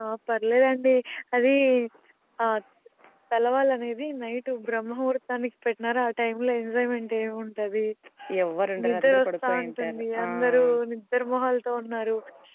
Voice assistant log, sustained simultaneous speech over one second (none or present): present